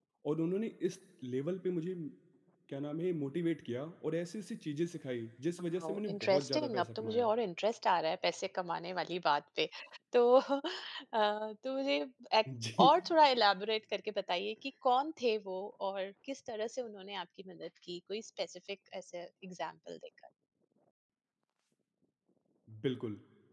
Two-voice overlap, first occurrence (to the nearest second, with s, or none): 6 s